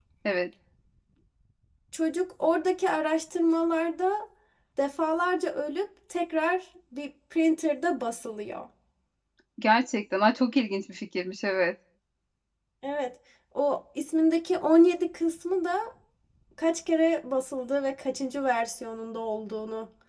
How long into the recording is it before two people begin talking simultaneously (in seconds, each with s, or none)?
none